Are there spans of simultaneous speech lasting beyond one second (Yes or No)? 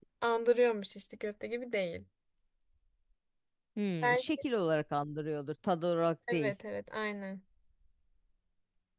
No